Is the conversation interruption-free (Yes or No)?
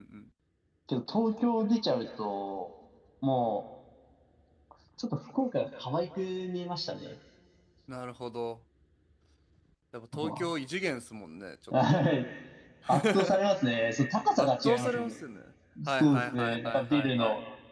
No